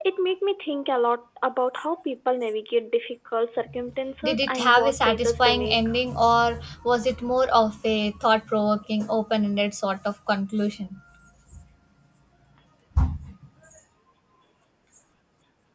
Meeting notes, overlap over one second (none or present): present